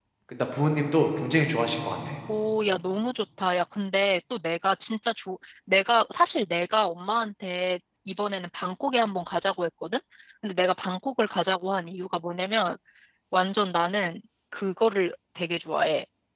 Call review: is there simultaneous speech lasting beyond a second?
No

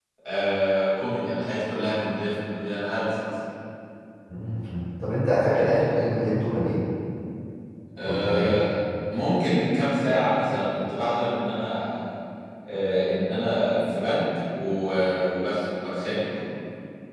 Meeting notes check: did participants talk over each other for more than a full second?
No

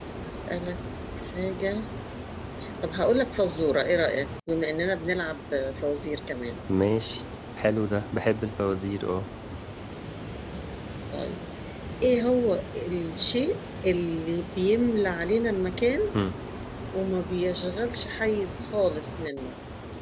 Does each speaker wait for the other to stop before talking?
Yes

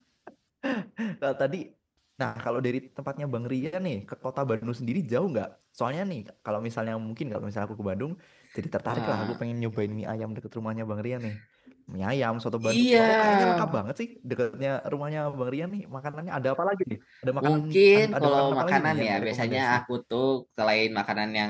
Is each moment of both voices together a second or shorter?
No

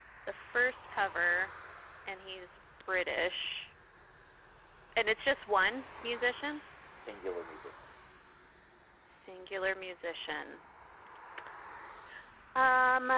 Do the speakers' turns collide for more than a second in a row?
No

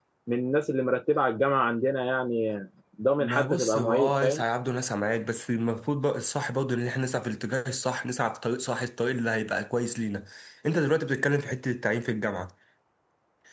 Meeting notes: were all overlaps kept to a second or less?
No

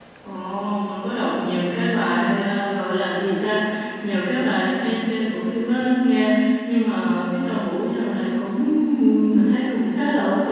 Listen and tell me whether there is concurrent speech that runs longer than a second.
No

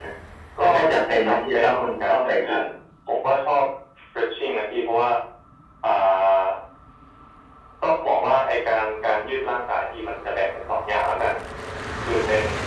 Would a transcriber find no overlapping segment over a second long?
No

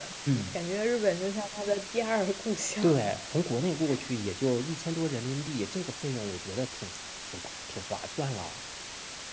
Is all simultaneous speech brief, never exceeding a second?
Yes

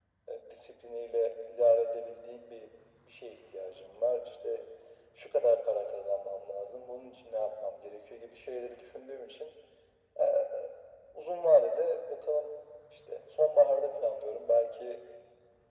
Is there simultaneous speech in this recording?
No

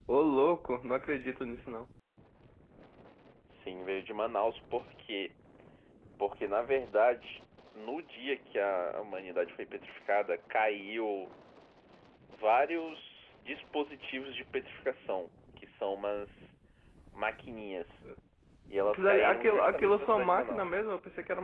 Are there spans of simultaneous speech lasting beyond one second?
Yes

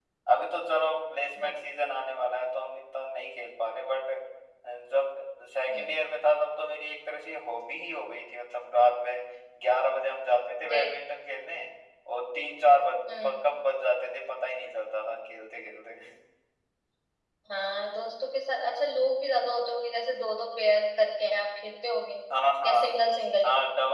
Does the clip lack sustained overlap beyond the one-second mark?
Yes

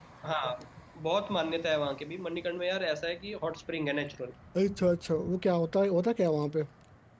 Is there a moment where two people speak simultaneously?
No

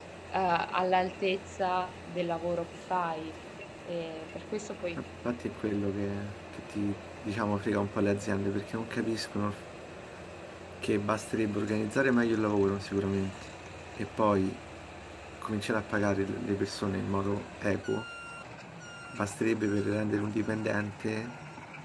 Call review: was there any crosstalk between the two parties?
No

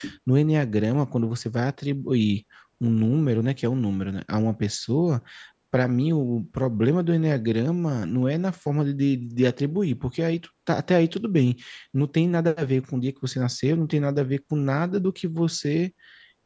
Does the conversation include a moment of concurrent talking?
No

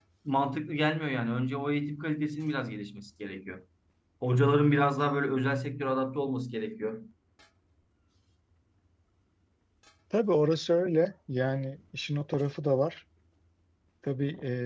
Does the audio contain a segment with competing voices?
No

